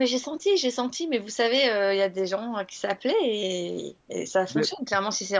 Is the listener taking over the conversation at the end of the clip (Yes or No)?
No